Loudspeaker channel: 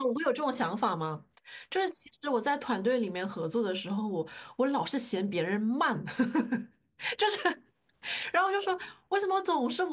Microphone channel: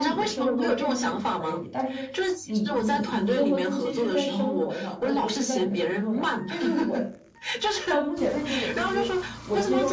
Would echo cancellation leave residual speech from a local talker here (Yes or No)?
Yes